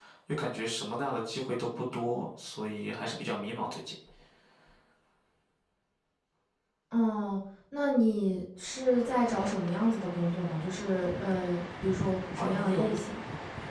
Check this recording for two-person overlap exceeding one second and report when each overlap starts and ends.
none

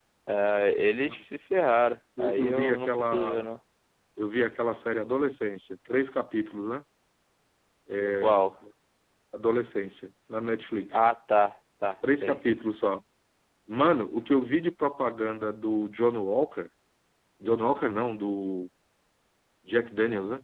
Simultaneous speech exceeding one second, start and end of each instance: 2.2-3.5

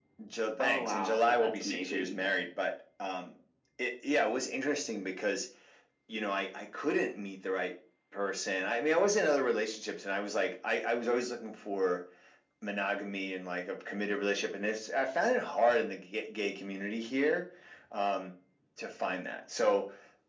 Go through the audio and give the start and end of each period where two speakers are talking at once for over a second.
0.6-2.2

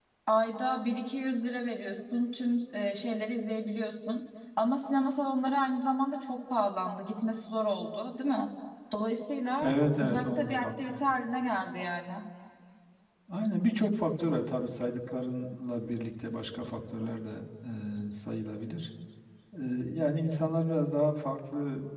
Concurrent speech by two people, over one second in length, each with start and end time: 9.6-11.1

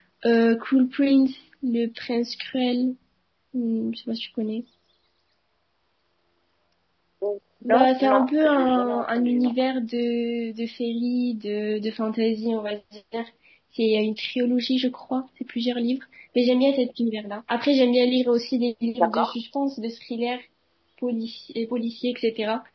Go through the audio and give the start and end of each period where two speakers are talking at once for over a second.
7.6-9.5

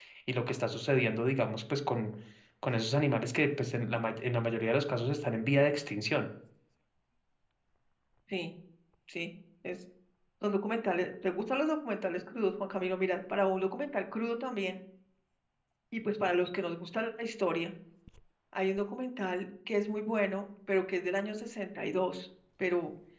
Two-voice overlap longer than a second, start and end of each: none

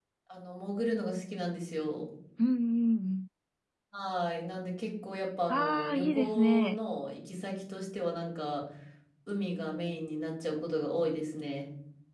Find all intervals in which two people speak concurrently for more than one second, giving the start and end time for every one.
5.5-6.8

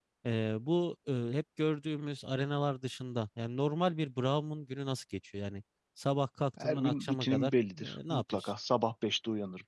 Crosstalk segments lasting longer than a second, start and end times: 6.6-8.5

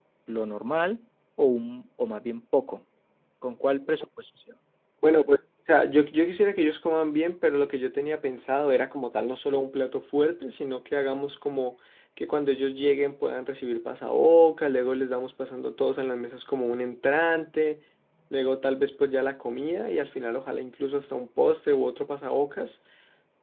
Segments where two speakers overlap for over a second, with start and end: none

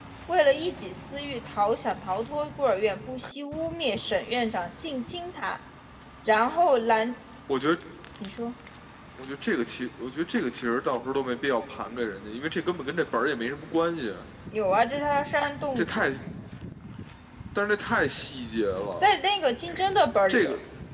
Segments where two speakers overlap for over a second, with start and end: none

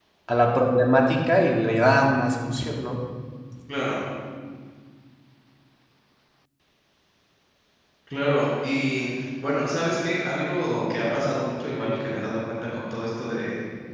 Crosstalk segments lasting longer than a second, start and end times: none

